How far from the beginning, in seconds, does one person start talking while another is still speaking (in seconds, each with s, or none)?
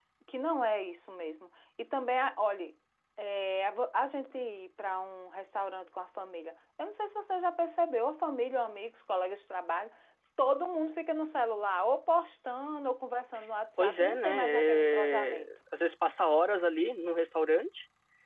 13.8 s